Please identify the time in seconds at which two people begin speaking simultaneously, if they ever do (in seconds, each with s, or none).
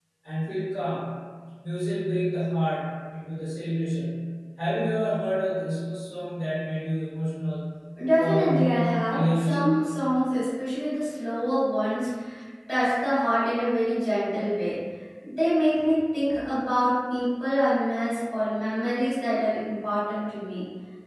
8.2 s